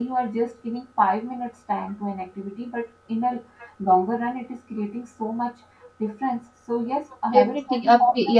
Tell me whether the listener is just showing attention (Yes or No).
No